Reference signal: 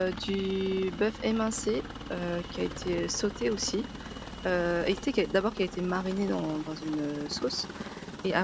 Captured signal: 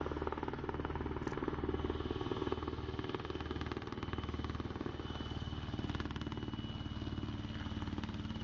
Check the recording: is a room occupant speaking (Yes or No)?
No